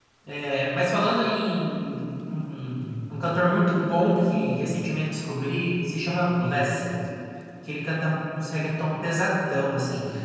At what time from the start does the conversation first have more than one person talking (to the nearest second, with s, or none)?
none